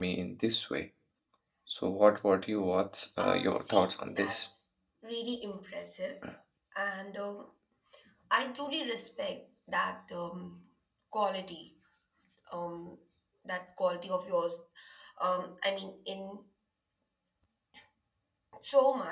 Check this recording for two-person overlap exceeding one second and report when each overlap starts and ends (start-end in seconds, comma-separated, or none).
3.2-4.5